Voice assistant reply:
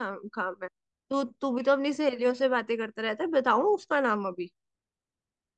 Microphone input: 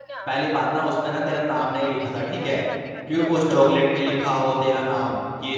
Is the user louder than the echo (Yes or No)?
Yes